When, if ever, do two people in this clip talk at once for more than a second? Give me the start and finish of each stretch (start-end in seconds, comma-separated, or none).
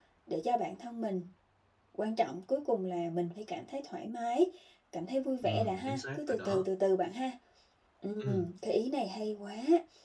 5.4-6.6